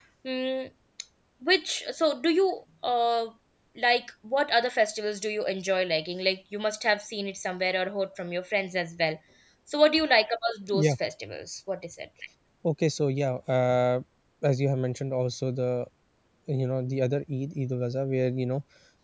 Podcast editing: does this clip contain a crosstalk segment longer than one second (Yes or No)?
No